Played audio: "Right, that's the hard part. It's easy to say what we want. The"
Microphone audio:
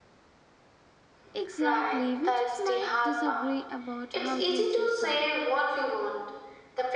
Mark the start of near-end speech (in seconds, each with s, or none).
1.3 s